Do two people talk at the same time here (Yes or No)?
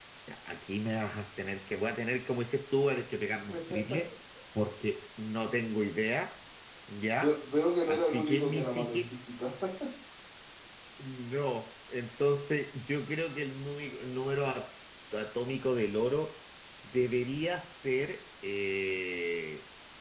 Yes